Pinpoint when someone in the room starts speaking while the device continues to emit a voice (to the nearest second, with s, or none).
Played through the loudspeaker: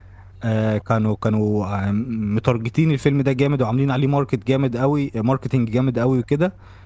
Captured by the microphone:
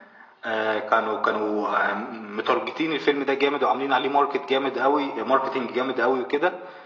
none